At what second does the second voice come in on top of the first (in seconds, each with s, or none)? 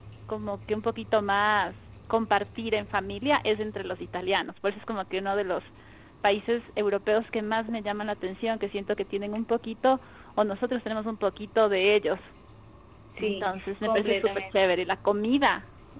13.2 s